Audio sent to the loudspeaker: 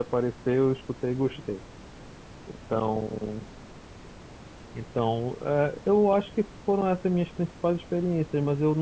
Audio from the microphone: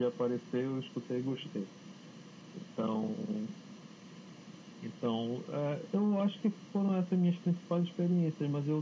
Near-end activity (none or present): none